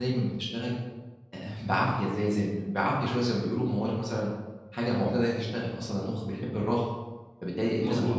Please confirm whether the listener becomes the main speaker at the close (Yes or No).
No